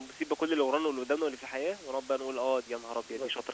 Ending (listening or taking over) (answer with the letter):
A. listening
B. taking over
B